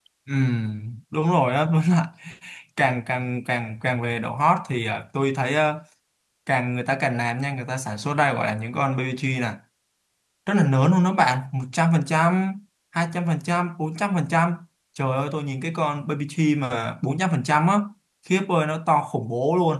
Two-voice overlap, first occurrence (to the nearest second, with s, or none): none